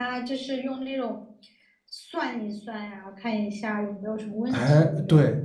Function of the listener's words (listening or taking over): taking over